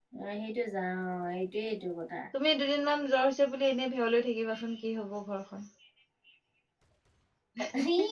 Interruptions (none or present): none